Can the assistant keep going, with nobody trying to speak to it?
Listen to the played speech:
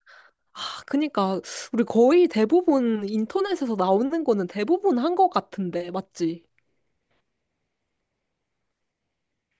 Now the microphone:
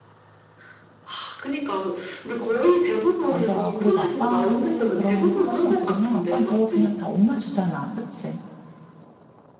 No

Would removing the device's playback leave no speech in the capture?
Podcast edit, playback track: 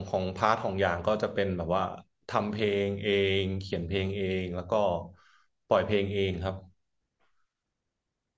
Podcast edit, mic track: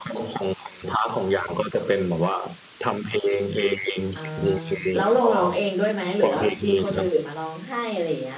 No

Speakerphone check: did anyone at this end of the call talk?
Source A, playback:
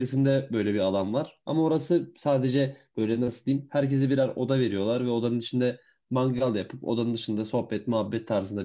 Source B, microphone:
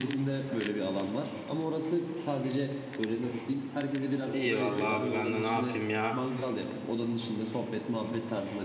Yes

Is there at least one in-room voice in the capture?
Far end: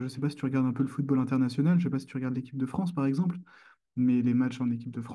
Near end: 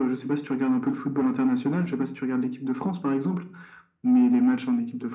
No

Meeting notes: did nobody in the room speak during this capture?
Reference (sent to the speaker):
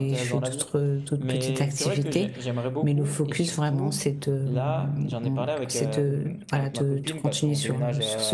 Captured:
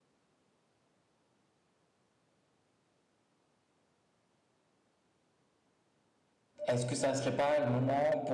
No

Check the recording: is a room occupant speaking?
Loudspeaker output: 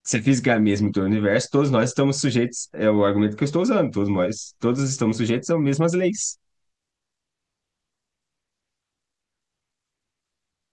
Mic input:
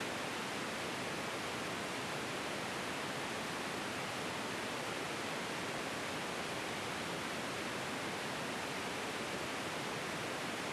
No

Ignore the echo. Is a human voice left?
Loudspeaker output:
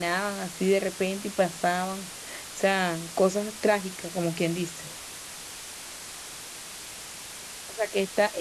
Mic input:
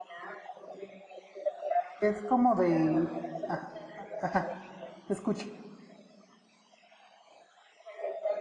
Yes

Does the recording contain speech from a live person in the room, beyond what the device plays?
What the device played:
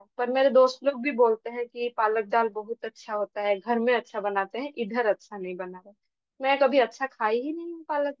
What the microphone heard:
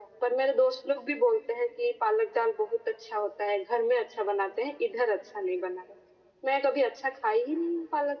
No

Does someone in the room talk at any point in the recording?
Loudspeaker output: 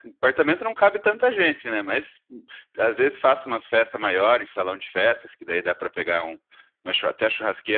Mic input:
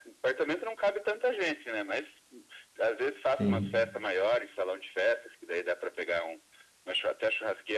Yes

